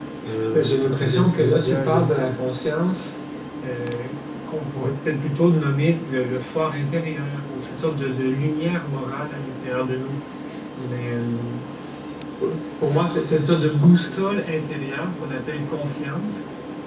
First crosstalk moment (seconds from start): 0.5 s

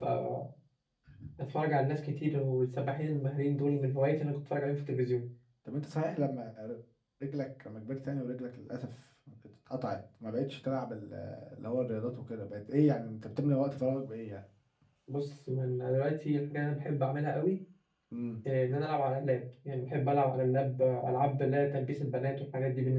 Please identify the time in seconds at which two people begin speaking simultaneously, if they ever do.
none

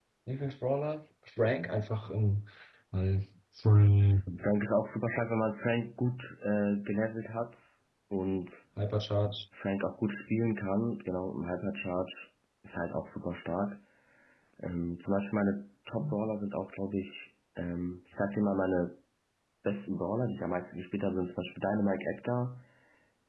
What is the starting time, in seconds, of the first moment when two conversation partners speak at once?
none

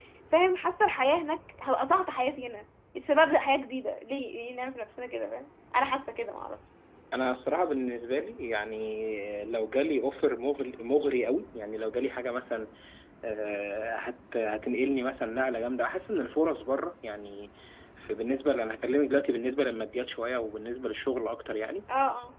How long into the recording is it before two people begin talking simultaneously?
none

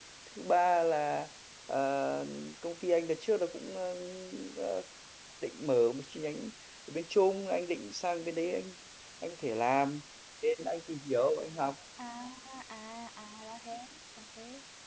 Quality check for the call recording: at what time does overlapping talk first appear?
none

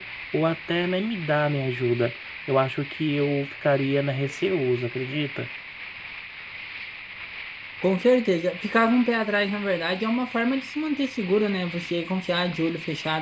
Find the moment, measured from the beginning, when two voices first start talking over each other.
none

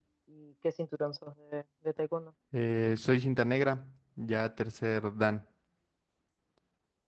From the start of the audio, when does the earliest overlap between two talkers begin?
none

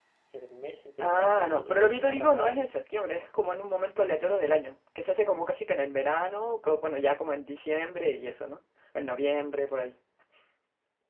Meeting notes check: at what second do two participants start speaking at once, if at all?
1.0 s

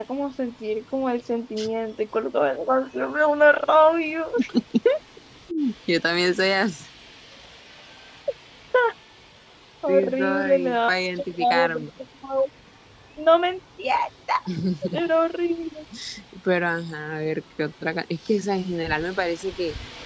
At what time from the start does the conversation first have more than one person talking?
9.9 s

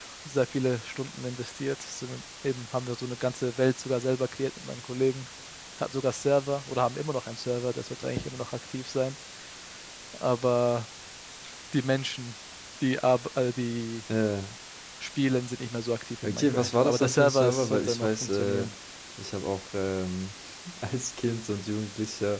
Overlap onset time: 16.2 s

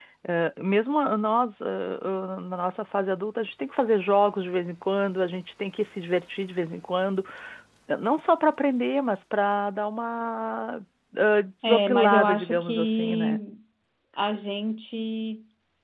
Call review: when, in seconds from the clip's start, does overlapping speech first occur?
11.6 s

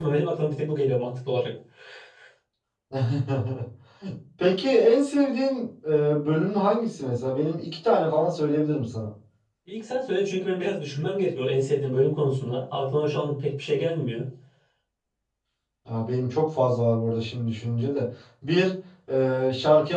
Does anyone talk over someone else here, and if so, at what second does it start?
none

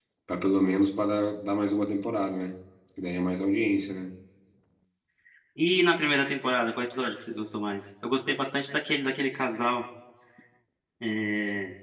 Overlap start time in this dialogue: none

